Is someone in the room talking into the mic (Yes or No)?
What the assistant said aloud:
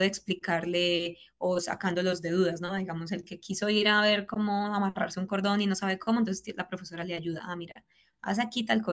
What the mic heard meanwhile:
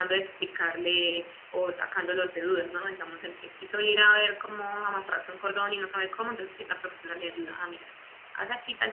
No